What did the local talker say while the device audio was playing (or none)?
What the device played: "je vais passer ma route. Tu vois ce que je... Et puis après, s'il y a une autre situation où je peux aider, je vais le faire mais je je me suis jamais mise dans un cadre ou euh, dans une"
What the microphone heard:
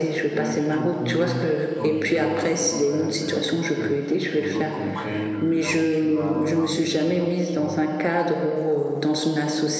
euh, faire épouser ton idée aux autres. hein. C'est-à-dire qu'il faut que les autres comprennent euh, là où tu vas, l'enjeu de tes ambitions